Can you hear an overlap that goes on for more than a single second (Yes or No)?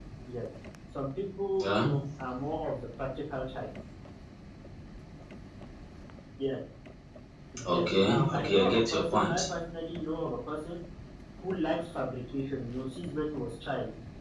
Yes